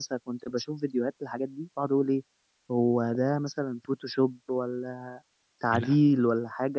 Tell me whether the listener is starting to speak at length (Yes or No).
No